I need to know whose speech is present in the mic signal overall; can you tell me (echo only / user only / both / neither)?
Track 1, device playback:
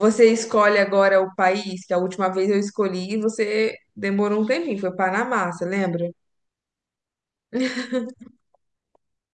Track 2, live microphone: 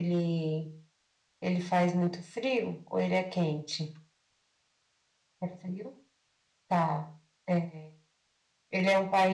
user only